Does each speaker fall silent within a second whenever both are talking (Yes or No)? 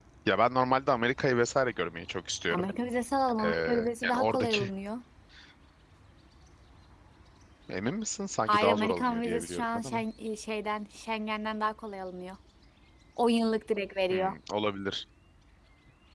No